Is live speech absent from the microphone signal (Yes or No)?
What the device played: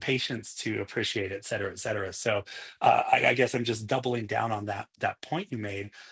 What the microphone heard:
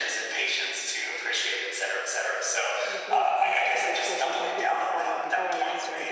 No